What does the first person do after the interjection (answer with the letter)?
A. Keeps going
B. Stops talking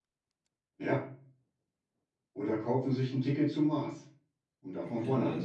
B